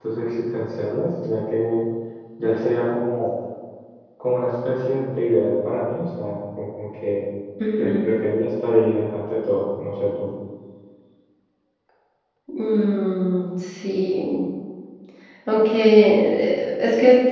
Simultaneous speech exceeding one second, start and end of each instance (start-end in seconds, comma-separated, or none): none